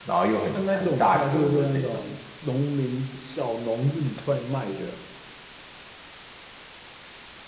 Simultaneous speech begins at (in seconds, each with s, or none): 0.5 s